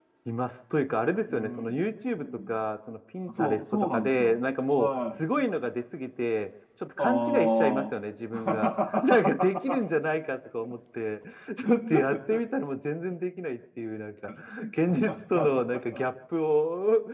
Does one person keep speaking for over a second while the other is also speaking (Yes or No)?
Yes